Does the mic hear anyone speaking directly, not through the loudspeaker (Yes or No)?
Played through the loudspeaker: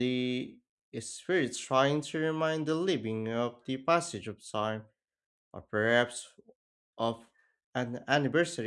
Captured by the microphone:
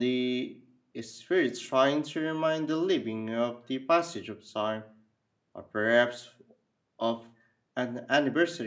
No